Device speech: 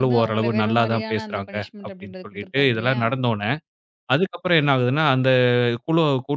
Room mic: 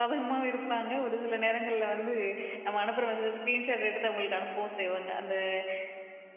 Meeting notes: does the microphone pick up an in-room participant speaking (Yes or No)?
Yes